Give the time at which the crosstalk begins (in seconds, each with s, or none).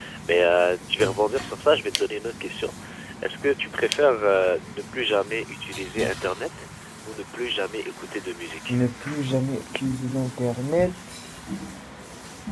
none